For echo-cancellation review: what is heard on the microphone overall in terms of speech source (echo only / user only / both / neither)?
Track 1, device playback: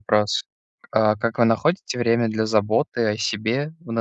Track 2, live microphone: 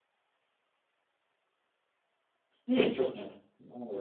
user only